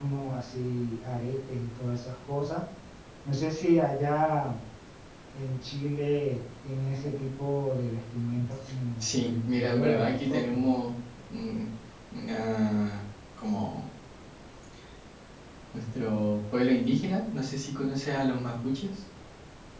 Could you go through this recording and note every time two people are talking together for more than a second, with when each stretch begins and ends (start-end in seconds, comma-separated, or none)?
9.0-10.7